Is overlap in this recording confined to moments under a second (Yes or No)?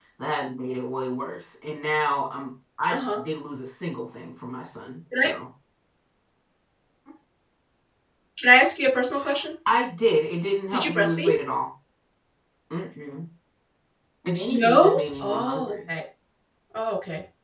No